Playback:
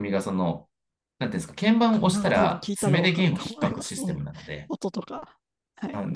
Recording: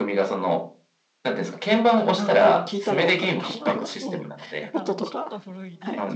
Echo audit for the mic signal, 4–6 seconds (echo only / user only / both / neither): both